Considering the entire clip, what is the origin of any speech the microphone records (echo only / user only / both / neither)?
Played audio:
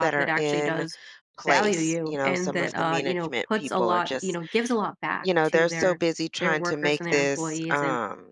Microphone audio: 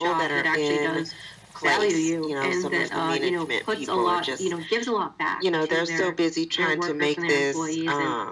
echo only